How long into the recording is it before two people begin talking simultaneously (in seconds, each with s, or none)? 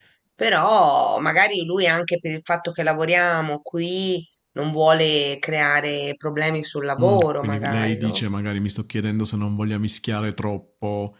7.0 s